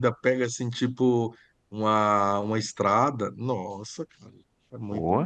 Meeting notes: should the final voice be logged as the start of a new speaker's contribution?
Yes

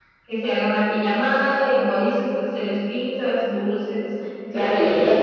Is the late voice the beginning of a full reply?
Yes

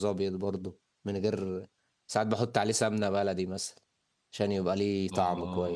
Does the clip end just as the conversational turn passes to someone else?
Yes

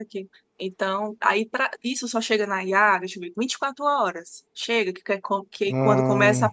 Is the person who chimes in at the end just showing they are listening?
Yes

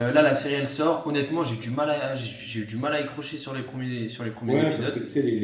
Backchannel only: No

